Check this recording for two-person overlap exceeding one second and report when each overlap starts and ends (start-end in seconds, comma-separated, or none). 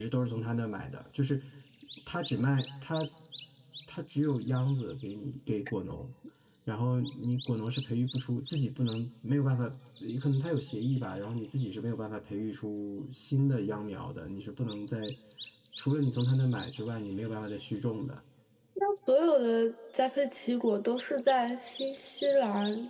none